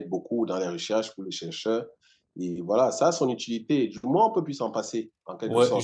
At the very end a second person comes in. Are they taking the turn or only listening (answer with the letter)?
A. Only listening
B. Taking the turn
B